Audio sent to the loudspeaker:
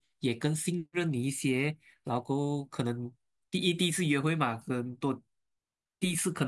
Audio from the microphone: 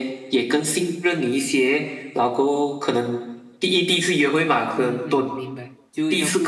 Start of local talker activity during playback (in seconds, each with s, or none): 4.7 s